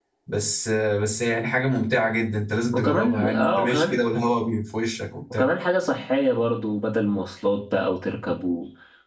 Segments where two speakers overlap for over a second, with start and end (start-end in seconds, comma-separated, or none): 2.7-4.0